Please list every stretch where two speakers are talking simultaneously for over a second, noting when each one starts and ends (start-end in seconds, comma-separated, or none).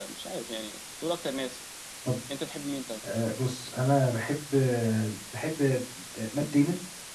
none